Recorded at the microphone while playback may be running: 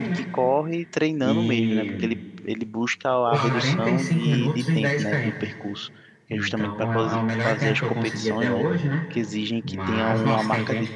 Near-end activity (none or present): present